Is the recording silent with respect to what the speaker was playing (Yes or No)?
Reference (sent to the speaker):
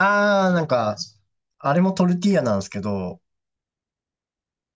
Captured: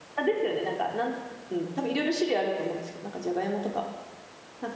Yes